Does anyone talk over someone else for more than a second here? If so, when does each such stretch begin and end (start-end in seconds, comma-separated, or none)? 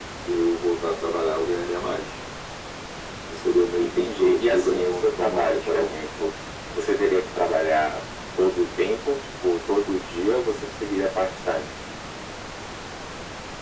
3.8-5.9